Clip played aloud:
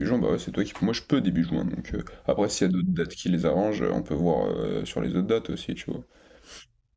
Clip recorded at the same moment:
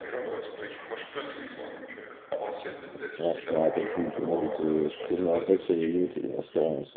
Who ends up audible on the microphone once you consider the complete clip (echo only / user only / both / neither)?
both